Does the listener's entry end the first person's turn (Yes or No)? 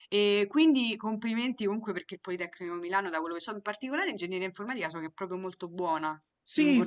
Yes